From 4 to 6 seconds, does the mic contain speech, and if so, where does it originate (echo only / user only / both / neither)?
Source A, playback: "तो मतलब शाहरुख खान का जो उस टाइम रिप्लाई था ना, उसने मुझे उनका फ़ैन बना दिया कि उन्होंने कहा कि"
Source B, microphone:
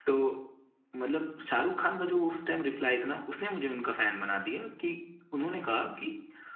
echo only